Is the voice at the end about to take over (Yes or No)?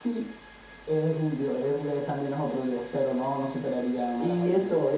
Yes